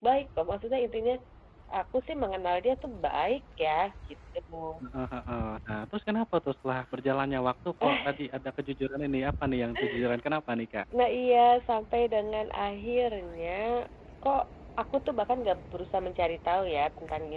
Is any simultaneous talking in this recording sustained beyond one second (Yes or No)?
No